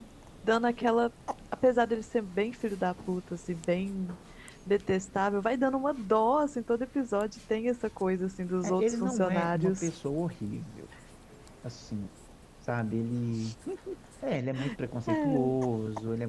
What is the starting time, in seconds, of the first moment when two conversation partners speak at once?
9 s

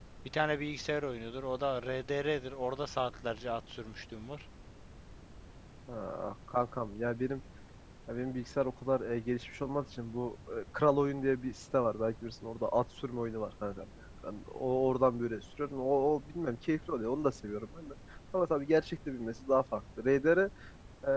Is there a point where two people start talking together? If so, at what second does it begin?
none

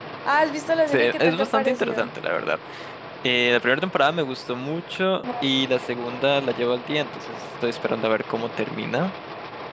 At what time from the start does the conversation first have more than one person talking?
1 s

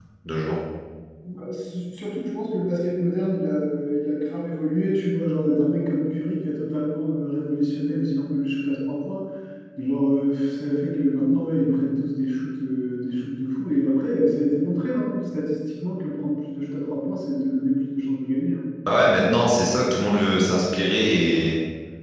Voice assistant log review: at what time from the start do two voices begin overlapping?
none

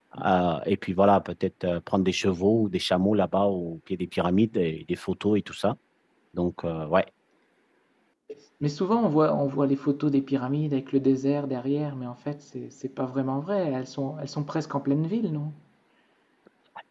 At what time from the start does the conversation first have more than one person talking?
none

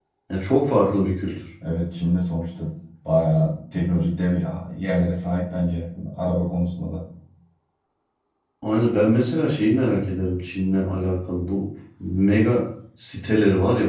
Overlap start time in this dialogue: none

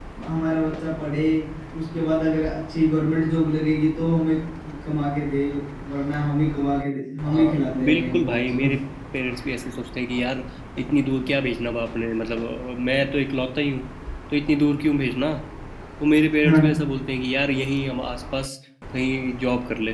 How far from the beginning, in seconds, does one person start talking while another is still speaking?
7 s

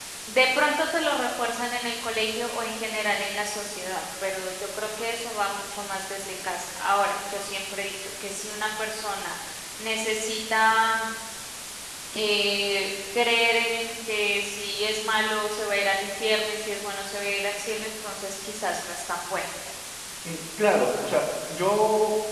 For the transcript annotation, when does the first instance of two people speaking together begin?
none

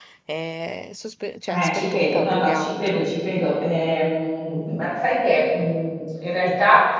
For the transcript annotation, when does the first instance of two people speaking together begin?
1 s

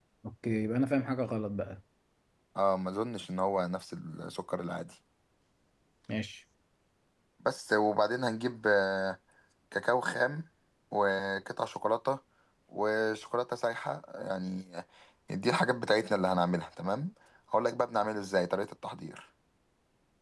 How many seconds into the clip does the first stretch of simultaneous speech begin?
none

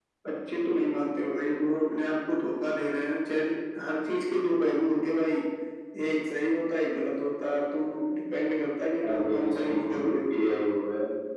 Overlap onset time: 9 s

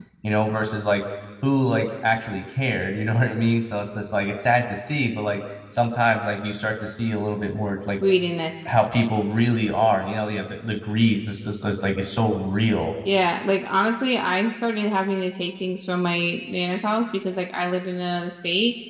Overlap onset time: none

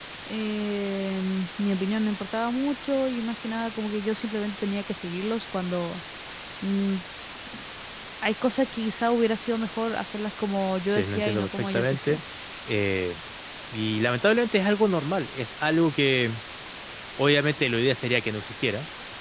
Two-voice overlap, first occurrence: 11 s

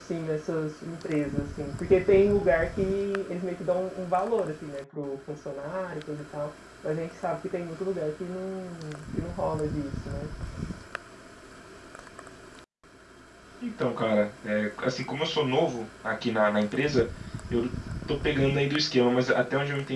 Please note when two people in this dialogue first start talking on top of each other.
none

